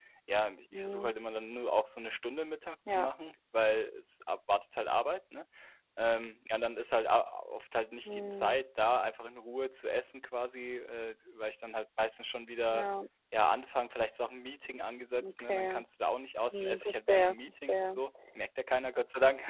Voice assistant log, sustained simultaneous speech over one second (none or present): present